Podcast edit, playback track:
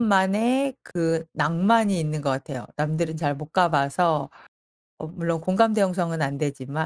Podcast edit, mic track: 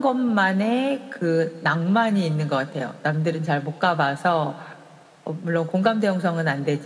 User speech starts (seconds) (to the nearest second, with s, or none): none